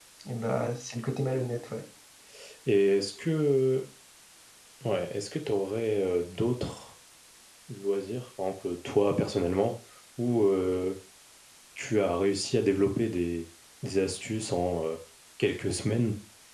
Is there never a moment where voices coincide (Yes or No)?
Yes